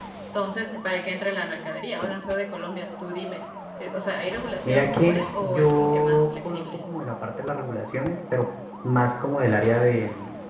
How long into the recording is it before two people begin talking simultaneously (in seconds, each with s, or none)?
4.6 s